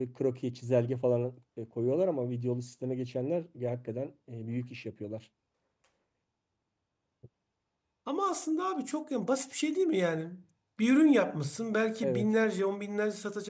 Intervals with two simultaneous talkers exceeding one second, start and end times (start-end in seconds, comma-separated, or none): none